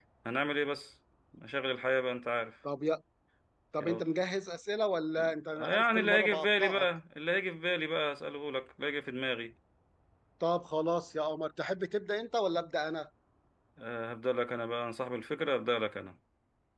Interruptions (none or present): present